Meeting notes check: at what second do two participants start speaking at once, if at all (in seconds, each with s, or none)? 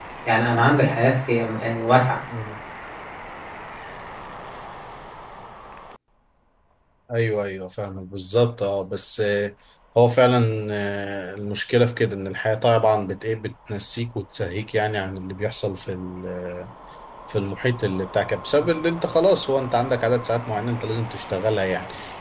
none